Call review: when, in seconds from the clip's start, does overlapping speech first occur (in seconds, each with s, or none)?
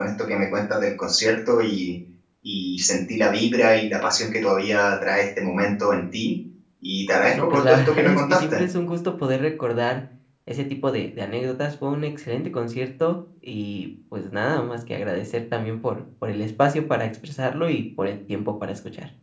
7.3 s